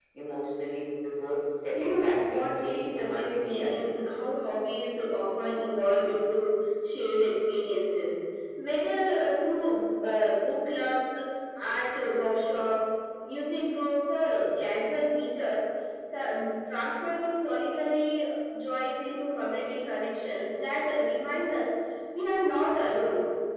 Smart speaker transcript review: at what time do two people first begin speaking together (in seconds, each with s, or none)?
1.7 s